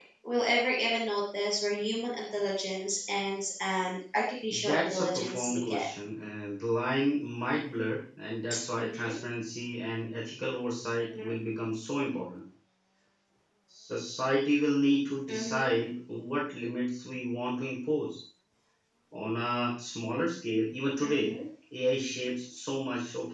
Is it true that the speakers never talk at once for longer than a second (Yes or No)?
No